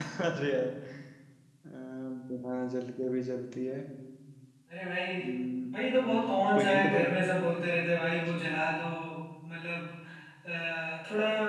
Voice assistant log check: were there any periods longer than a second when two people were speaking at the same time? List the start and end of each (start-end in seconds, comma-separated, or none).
5.7-7.0